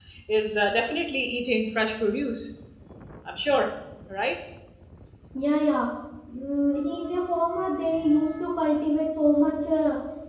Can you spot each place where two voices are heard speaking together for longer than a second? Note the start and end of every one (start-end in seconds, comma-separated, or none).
none